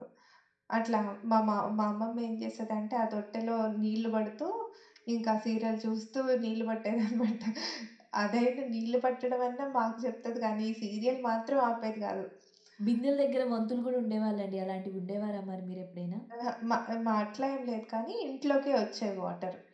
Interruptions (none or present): none